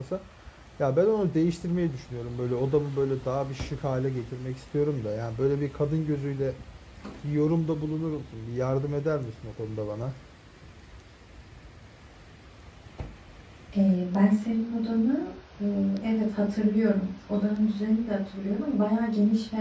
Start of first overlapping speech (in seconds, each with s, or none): none